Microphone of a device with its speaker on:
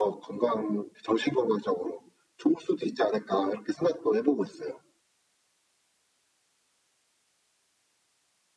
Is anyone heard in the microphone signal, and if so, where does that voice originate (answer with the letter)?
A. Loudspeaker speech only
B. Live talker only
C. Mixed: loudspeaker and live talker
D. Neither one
A